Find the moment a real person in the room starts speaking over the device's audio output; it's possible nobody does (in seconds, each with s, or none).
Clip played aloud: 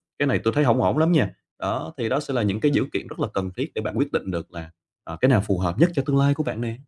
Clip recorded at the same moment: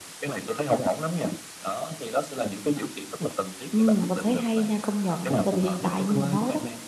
3.7 s